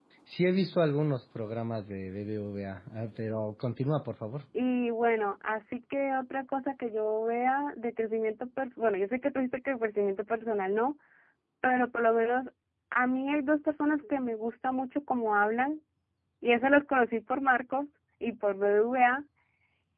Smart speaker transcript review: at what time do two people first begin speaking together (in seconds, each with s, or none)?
none